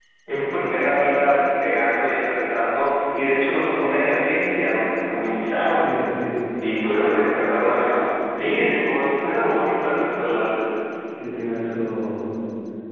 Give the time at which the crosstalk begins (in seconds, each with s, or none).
none